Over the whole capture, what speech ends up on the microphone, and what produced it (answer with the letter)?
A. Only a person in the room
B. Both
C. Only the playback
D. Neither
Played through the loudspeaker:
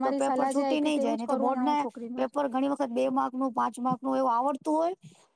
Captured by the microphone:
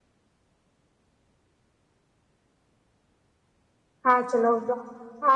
A